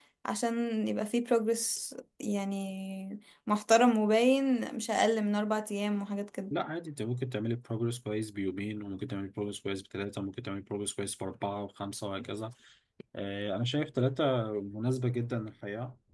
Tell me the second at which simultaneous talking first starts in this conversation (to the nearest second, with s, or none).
none